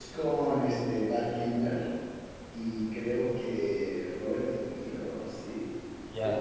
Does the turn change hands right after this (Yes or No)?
Yes